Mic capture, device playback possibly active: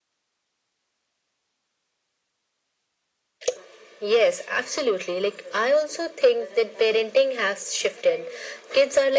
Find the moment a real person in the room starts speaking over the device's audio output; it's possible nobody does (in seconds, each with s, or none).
none